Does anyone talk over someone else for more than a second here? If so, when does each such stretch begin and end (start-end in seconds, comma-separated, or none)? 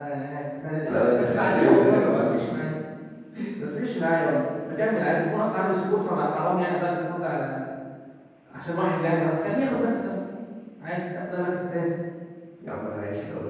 0.9-2.3